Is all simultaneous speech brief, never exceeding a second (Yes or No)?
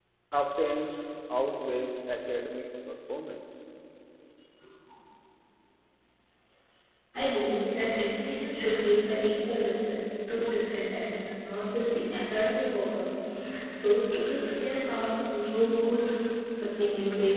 Yes